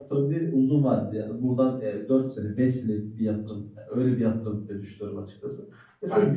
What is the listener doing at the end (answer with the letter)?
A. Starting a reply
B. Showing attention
B